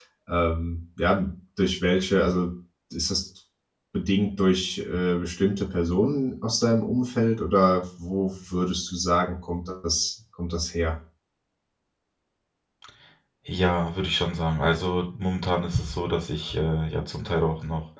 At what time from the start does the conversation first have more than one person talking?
none

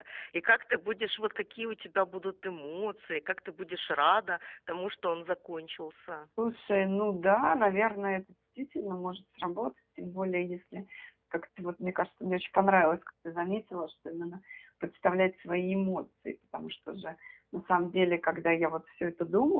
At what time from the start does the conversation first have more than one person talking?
none

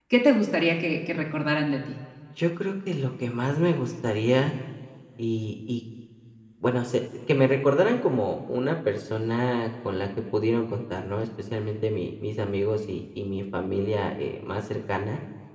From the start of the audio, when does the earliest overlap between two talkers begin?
none

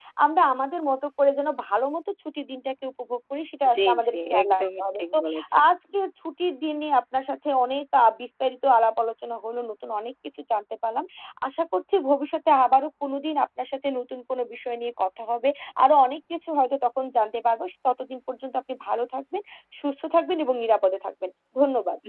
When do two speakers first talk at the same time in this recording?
4 s

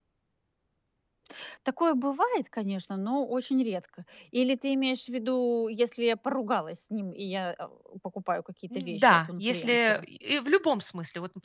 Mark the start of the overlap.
9 s

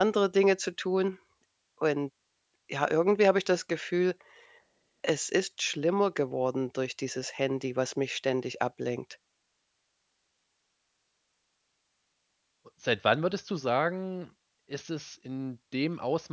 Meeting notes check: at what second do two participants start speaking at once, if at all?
none

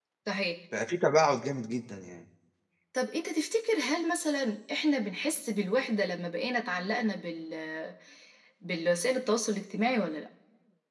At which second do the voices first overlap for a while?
none

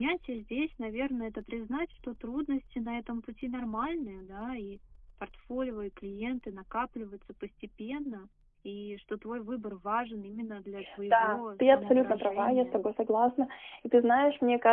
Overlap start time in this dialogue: 11 s

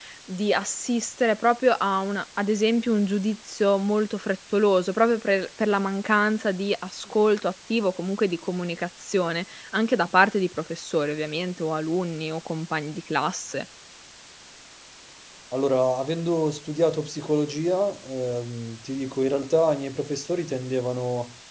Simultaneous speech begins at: none

